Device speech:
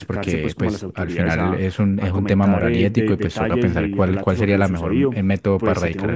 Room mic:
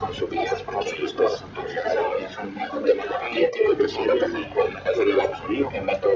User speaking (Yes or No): No